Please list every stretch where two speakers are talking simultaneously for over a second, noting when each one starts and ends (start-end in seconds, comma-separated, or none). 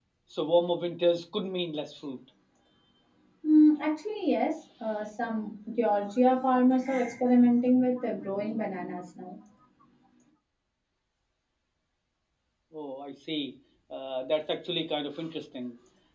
none